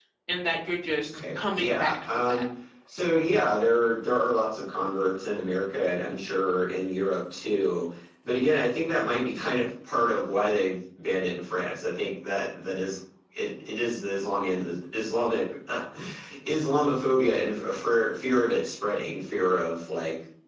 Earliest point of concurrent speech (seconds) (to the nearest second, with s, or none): 1 s